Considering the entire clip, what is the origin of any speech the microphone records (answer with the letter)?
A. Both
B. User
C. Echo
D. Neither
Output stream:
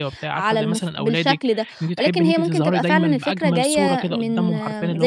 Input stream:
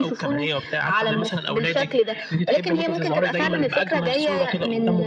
C